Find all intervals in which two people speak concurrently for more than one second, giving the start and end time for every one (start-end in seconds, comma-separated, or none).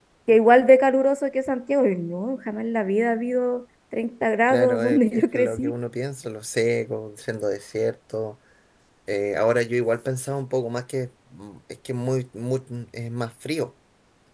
4.5-5.7